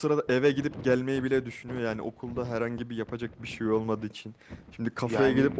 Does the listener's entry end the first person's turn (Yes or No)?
No